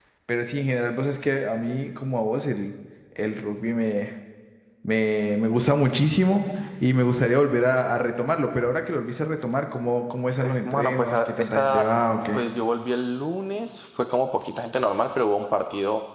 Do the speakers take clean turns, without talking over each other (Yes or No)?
No